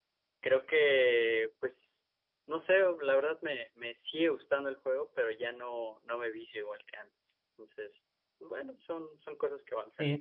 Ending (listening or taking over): taking over